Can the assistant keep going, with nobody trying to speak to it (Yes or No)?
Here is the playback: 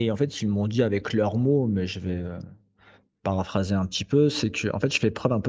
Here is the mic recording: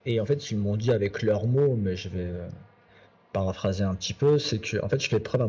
Yes